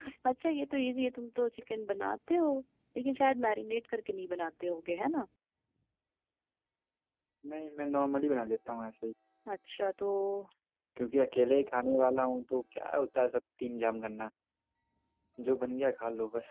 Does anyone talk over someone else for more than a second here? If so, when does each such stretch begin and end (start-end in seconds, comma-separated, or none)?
none